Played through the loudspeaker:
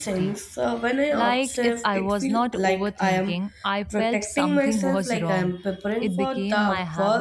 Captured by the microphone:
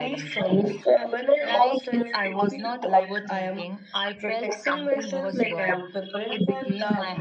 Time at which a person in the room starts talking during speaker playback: none

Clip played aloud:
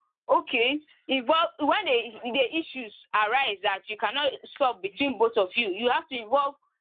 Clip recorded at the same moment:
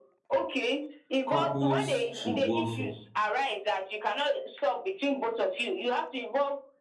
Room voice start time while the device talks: 1 s

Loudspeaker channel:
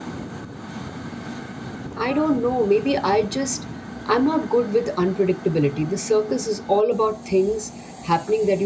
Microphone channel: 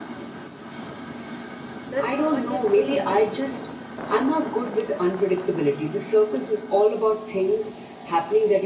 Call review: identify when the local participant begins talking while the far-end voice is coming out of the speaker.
2 s

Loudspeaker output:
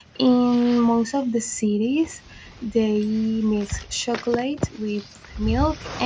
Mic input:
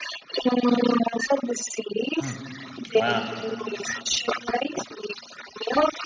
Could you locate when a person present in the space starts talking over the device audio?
2 s

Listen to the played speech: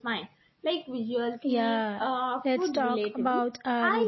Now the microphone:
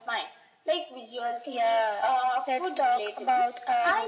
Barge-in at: none

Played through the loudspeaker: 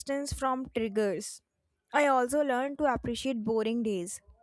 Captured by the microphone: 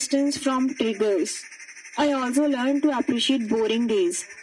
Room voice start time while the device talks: none

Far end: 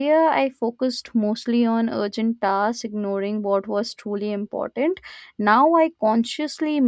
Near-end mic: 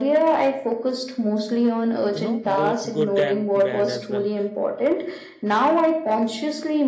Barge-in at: 2 s

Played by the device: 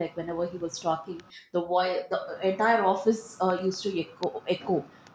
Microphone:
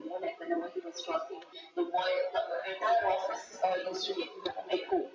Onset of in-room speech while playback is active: none

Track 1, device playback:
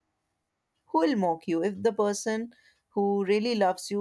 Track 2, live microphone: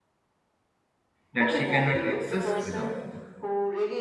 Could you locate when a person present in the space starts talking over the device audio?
1 s

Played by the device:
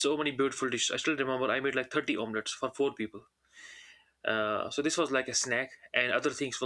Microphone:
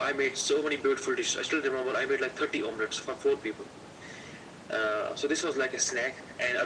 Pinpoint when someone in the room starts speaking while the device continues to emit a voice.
none

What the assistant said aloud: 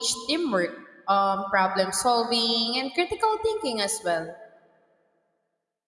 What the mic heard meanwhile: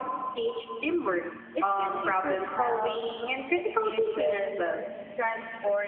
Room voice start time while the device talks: 2 s

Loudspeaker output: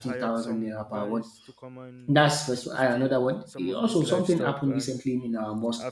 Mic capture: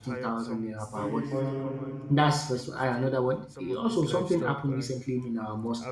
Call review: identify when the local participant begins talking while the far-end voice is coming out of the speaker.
1 s

